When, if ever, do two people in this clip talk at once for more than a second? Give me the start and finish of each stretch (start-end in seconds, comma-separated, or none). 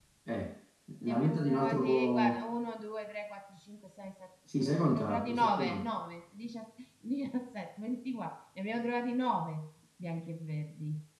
1.1-2.4, 4.6-5.9